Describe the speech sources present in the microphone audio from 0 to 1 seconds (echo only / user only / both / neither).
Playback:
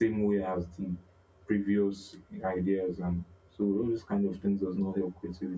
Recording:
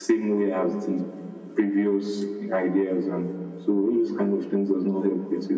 echo only